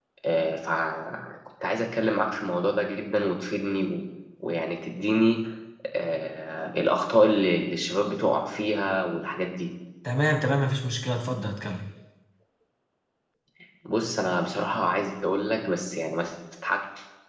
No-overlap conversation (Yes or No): Yes